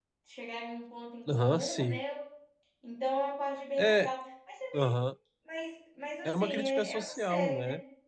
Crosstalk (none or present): present